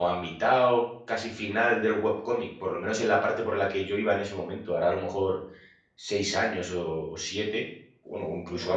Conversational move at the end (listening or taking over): listening